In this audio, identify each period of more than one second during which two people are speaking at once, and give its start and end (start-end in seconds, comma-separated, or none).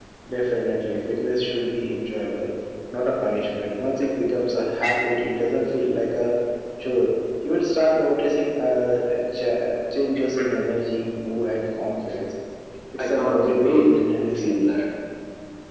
13.0-14.6